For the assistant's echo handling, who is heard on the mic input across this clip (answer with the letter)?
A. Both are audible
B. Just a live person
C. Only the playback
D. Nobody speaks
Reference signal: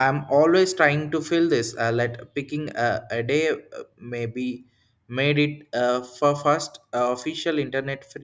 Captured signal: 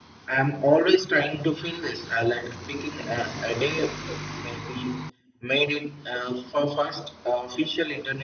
C